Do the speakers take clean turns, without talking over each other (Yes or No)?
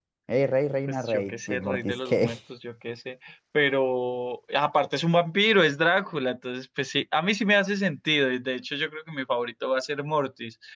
No